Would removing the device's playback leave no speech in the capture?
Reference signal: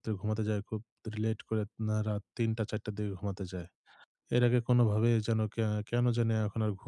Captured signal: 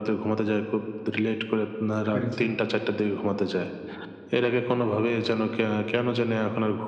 No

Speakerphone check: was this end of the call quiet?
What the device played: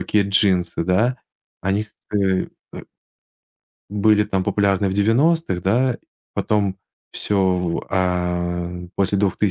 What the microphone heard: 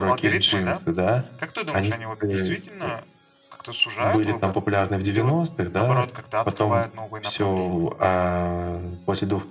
No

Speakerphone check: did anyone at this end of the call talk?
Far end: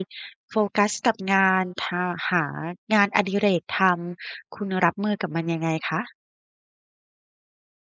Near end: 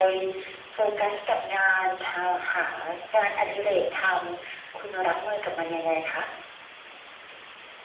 No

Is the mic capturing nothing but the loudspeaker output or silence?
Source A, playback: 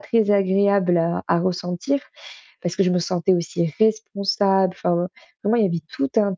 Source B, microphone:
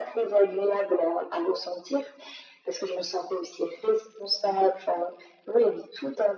Yes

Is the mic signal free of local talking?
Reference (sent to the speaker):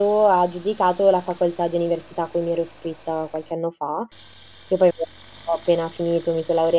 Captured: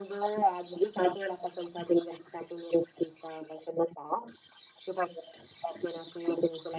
Yes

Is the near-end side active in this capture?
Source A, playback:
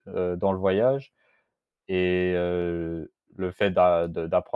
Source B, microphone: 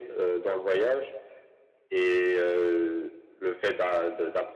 No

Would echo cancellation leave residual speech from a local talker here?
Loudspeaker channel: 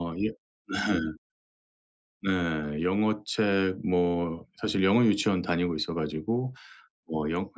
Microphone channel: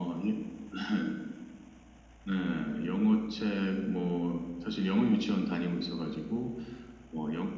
No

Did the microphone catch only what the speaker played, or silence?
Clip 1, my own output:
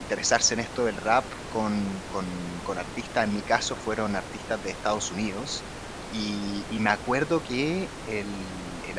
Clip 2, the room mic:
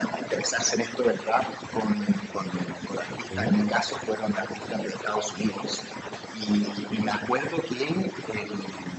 No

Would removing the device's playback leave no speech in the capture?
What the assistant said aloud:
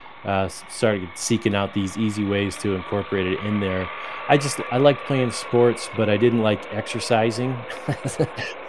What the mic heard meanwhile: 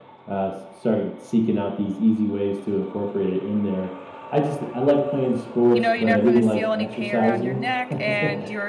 No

